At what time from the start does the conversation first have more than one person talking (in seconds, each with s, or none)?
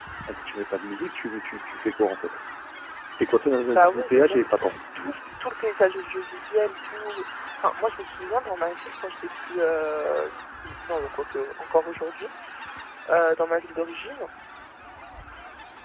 3.7 s